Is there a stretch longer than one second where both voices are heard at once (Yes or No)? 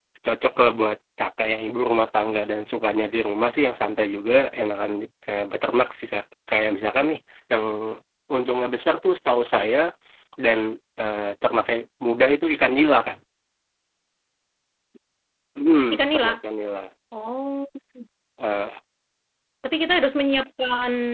No